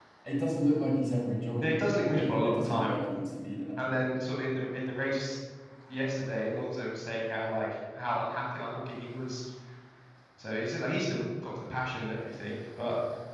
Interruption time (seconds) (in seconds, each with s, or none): 1.6 s